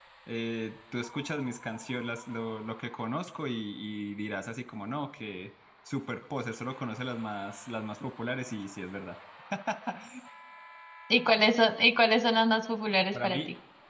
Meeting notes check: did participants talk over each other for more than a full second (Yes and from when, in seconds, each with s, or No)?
No